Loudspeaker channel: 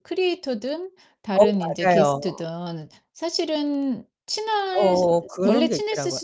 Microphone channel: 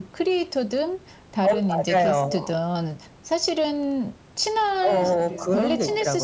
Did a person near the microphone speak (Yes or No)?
Yes